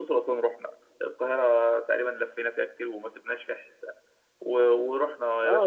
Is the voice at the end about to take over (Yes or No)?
Yes